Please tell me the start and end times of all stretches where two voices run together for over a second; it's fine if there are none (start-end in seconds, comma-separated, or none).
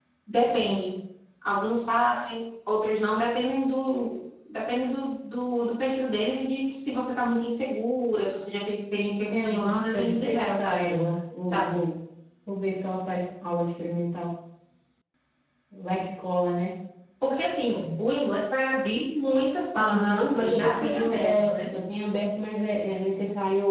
9.3-11.0, 19.8-21.5